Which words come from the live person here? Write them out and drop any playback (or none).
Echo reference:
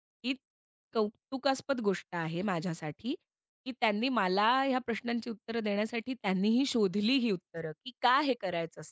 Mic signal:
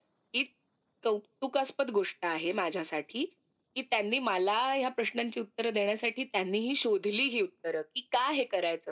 none